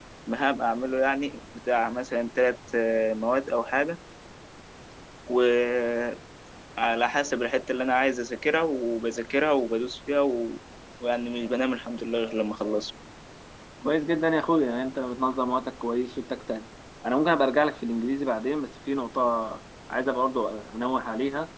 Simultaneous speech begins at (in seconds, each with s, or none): none